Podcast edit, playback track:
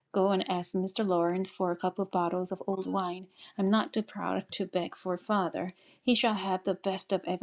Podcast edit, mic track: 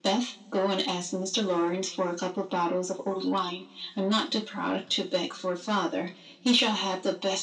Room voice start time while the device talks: none

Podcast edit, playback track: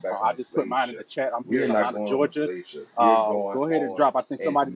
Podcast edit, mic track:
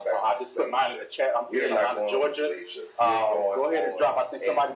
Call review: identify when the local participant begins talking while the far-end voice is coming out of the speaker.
none

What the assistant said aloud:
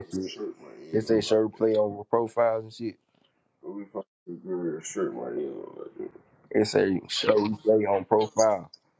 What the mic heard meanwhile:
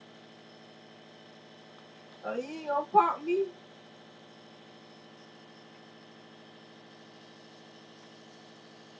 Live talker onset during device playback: 2.2 s

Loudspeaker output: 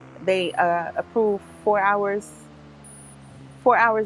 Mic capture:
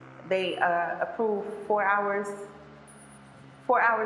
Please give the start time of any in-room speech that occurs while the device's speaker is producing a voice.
none

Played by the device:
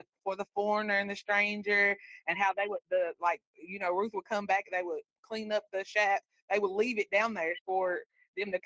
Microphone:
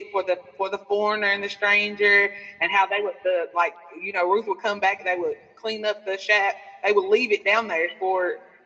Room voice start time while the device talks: none

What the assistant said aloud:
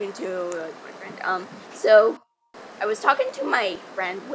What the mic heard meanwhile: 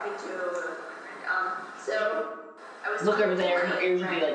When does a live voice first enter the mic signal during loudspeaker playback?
3.0 s

